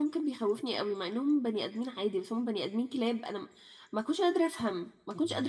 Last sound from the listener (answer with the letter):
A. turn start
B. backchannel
A